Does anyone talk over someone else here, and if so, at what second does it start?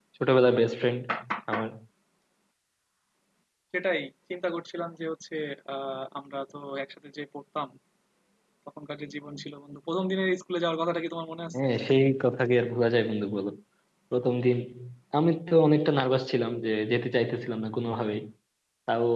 none

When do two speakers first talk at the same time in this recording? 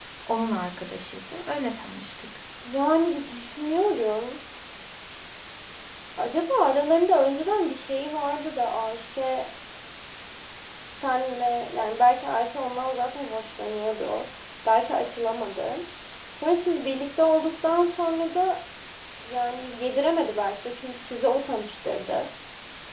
none

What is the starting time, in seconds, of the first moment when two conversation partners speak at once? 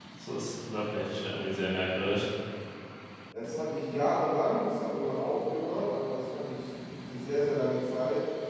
none

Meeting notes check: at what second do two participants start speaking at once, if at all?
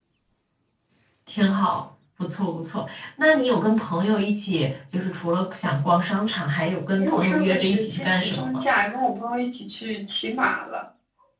6.9 s

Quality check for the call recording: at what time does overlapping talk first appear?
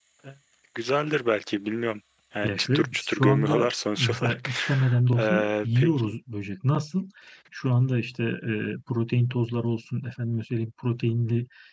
2.4 s

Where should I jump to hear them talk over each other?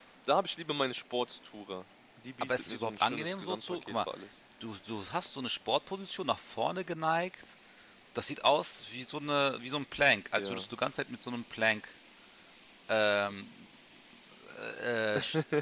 2.4 s

